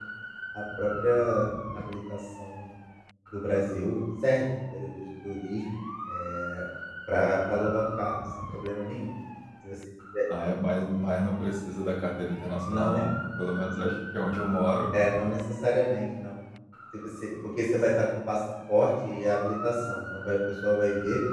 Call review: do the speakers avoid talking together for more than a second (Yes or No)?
Yes